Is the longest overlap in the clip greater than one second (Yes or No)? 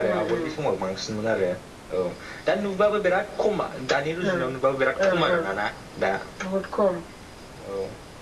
No